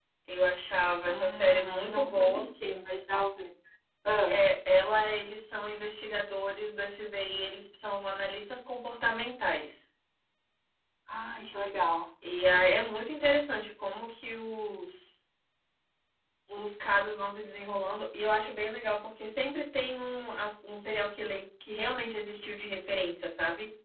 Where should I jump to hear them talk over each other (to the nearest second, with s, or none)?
1 s